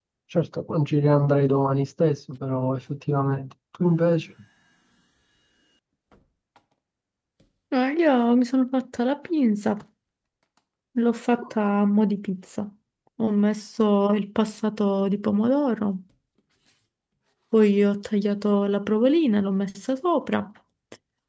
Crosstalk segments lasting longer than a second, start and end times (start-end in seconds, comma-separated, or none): none